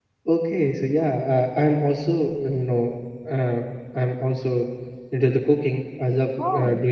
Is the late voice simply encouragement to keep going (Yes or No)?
Yes